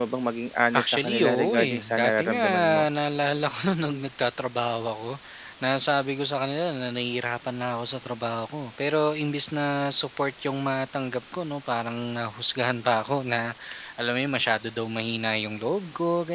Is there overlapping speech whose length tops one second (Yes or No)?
Yes